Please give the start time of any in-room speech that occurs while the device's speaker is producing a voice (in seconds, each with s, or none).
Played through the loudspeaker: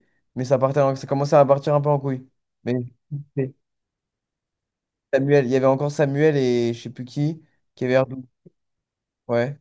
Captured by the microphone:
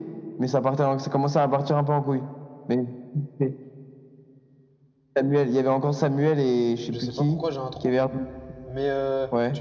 6.8 s